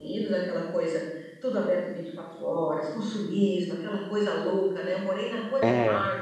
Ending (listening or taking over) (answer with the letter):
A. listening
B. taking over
A